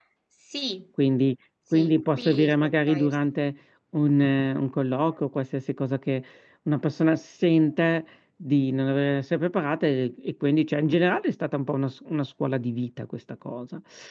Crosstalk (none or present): present